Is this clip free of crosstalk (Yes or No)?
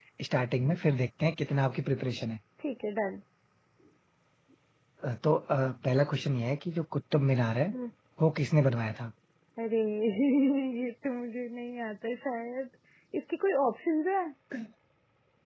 Yes